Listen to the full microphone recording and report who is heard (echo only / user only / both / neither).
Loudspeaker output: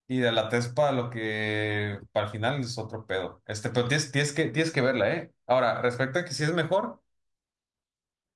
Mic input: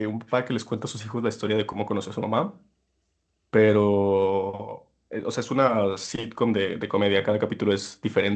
user only